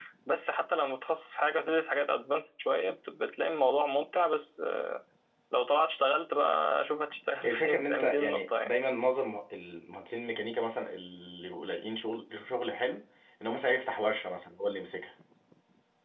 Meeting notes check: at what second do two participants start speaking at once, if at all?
7 s

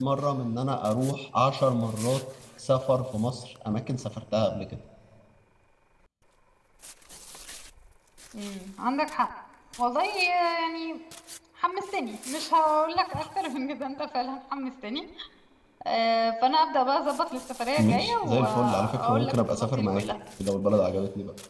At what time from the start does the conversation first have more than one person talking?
18 s

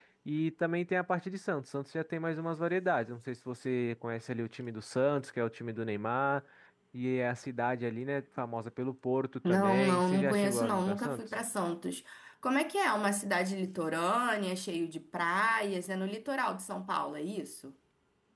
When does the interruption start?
9 s

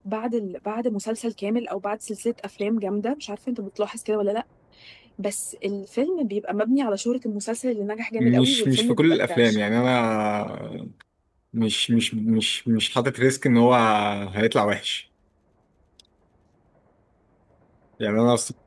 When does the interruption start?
8 s

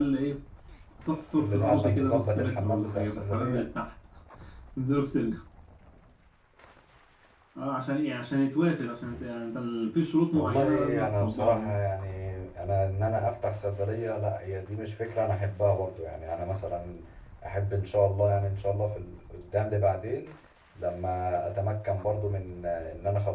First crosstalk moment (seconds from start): 1 s

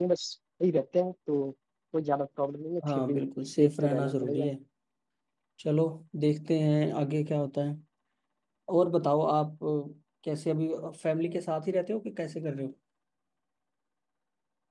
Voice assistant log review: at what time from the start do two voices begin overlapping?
3 s

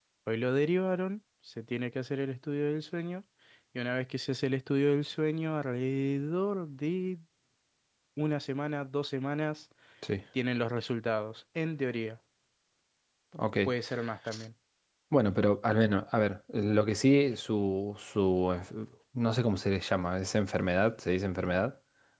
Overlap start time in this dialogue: none

